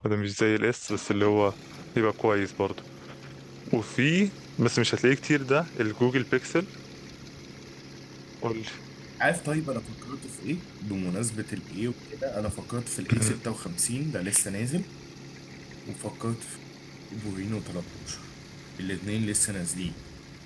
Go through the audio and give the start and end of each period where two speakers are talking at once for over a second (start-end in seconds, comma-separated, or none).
none